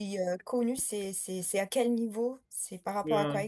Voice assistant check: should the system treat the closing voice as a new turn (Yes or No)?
Yes